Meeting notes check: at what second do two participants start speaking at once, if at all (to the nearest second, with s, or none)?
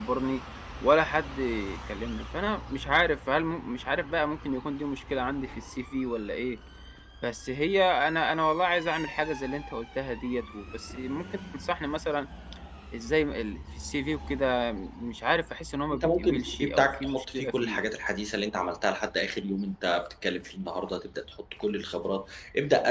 16 s